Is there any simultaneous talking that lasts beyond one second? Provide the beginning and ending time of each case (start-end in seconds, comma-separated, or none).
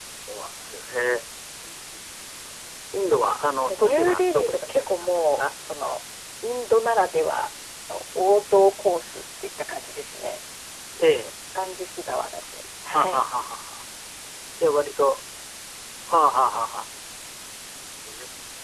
3.6-5.4